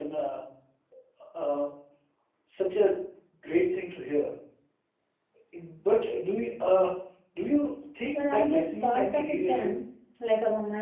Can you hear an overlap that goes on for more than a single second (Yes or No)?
Yes